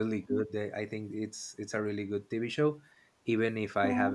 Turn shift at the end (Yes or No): No